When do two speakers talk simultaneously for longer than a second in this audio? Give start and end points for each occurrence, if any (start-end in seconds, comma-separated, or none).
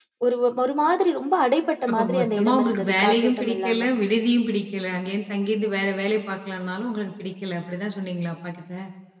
1.9-3.8